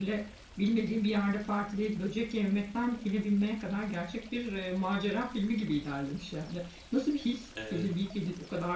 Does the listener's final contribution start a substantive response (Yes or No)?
No